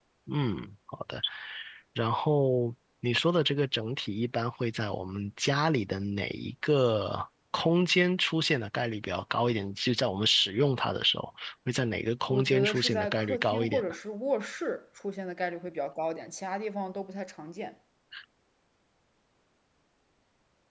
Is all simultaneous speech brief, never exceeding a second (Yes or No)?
No